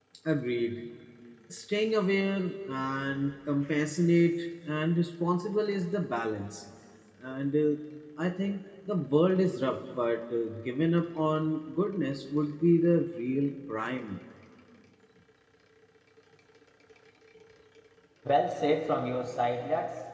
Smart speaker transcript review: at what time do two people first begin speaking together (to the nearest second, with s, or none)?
none